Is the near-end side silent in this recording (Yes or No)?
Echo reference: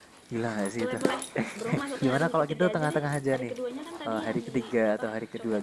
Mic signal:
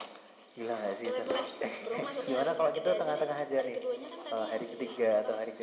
Yes